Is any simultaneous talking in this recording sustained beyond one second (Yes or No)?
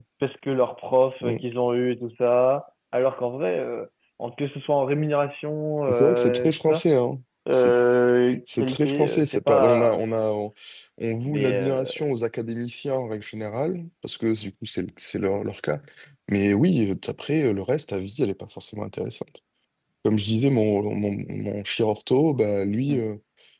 Yes